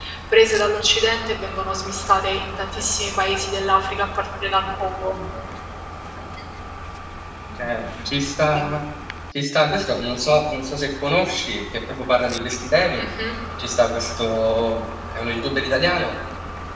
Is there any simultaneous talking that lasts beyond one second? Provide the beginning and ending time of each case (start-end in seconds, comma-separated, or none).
none